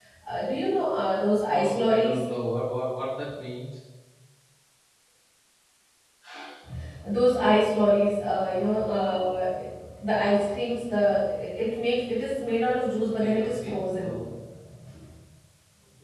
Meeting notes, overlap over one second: present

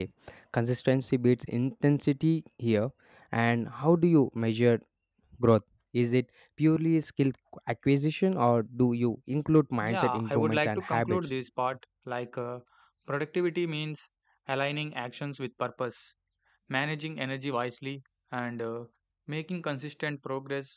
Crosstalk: present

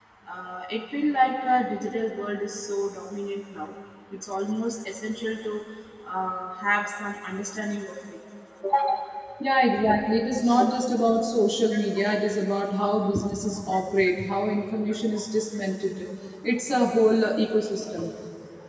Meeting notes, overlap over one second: none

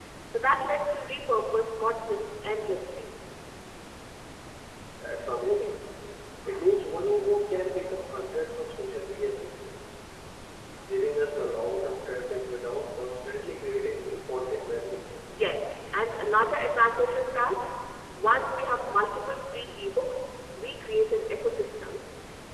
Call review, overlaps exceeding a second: none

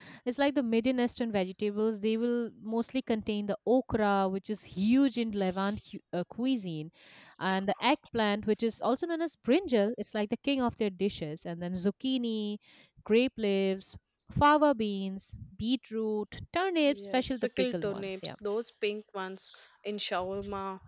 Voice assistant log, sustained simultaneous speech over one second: present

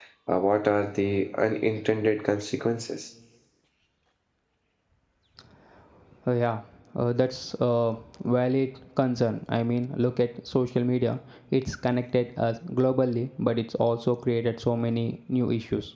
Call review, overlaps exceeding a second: none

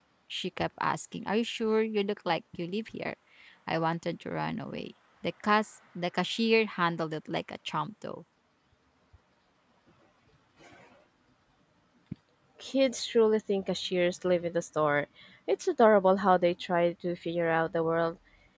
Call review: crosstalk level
none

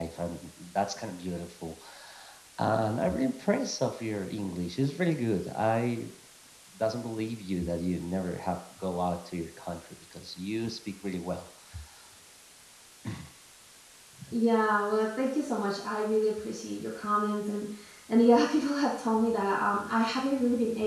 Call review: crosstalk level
none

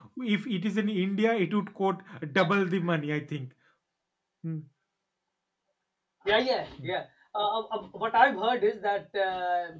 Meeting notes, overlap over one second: none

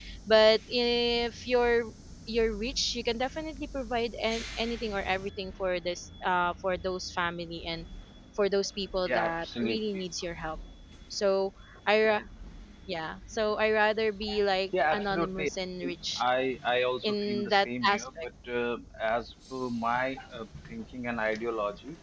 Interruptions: present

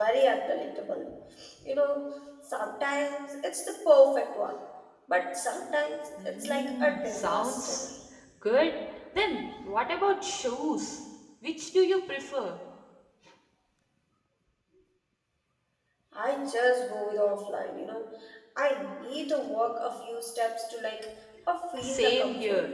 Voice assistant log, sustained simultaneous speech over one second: present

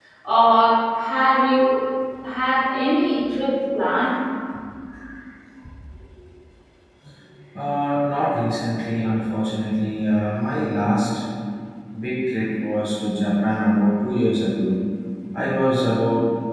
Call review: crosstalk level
none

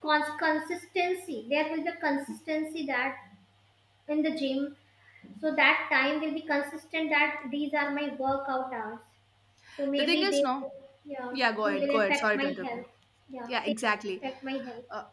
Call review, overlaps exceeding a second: present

